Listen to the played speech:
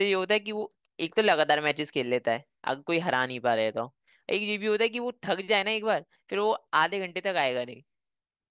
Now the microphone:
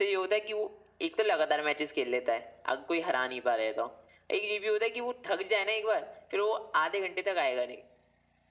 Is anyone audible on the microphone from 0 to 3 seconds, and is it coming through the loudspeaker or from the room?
echo only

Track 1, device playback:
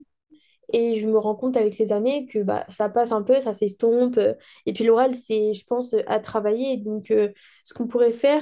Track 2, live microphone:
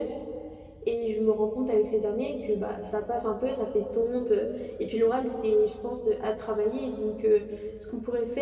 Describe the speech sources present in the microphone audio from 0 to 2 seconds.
echo only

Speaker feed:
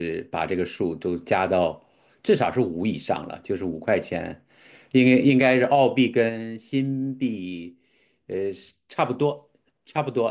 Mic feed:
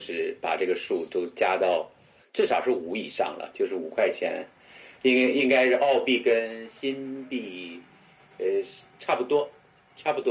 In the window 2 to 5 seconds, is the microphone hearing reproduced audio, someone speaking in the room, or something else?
echo only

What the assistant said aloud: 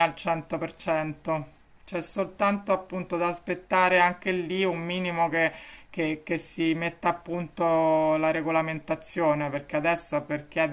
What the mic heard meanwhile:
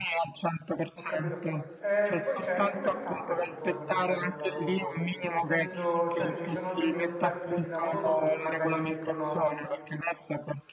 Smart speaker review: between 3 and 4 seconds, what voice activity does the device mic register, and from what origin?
both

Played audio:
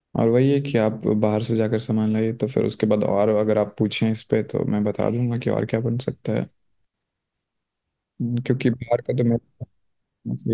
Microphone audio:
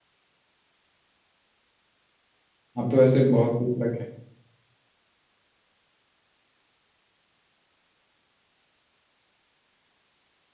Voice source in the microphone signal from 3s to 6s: user only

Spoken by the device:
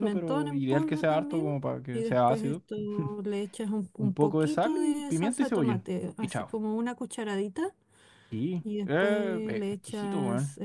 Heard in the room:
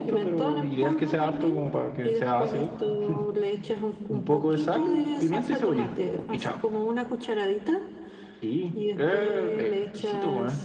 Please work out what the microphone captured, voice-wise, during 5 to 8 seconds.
echo only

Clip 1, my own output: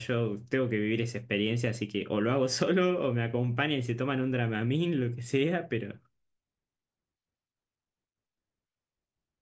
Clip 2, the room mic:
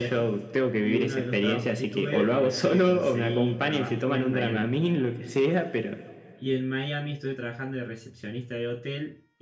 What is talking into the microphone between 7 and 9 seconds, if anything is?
user only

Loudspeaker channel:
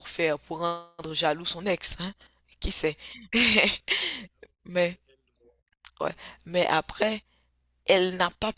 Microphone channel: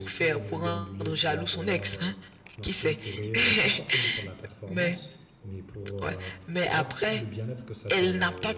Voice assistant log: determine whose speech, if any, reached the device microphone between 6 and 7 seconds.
both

